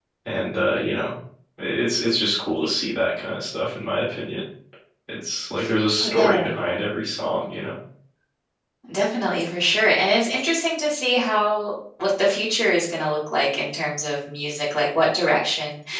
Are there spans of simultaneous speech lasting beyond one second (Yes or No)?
No